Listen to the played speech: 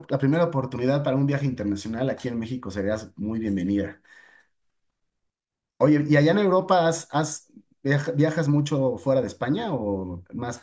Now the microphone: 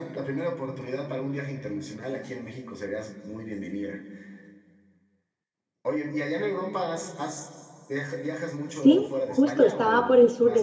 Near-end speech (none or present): present